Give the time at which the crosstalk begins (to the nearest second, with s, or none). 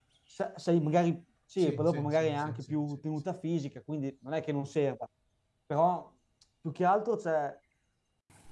2 s